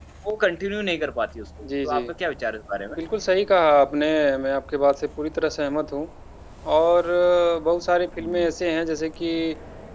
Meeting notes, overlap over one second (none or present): none